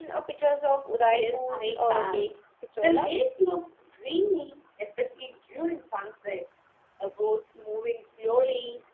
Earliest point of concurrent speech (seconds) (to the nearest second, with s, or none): 1 s